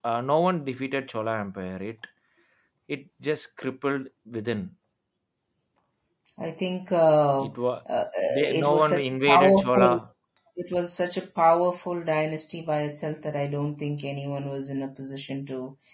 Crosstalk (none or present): present